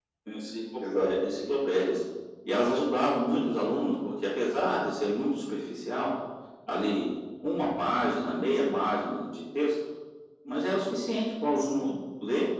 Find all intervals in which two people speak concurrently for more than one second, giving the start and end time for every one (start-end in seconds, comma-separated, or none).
none